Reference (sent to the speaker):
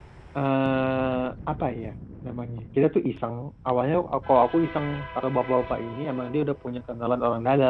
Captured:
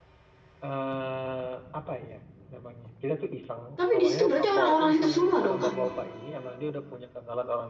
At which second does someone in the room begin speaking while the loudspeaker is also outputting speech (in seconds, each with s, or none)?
3.8 s